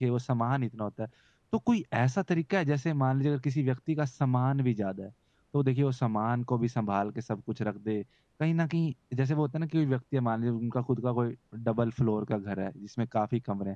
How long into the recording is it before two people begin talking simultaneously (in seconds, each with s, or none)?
none